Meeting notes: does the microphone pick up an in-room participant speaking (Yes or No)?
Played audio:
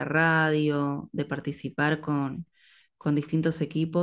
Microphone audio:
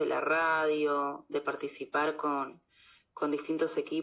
No